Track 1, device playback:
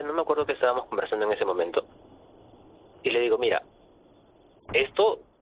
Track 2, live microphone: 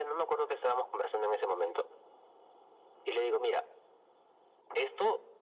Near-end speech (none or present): none